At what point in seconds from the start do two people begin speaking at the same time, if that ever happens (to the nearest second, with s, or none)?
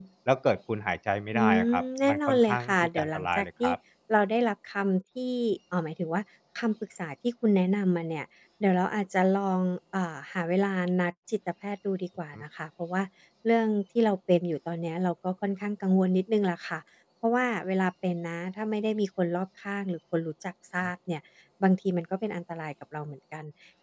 1 s